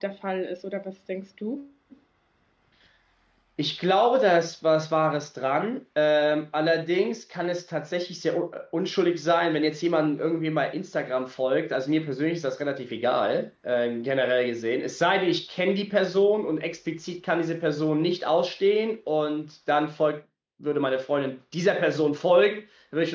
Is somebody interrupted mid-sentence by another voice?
No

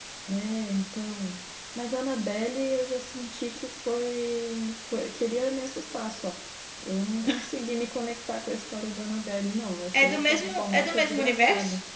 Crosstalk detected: Yes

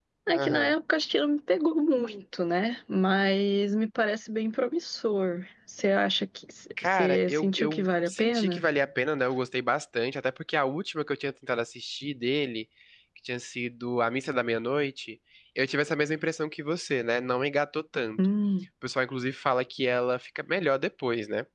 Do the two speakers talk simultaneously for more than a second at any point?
Yes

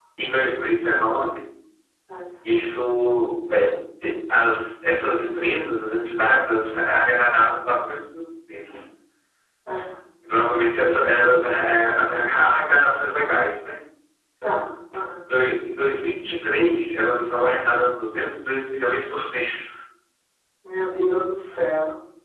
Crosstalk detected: No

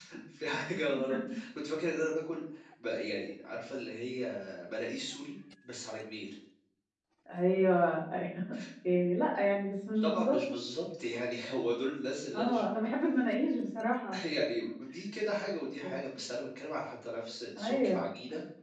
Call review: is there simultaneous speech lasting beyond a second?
No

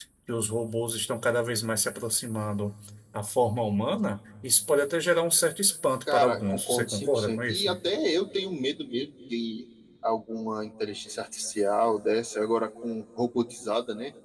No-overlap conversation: No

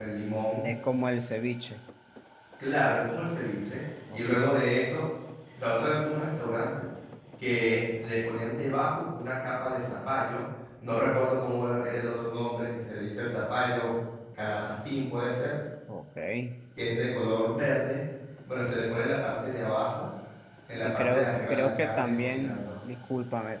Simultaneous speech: Yes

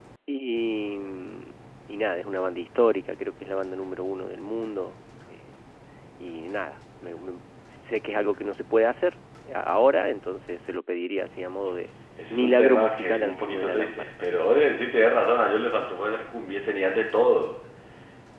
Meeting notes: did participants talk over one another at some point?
Yes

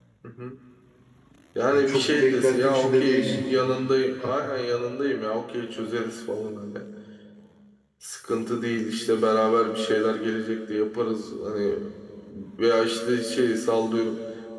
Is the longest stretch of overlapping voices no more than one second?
No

